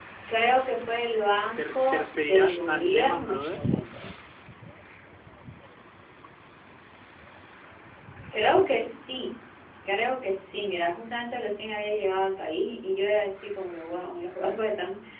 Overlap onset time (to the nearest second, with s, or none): 2 s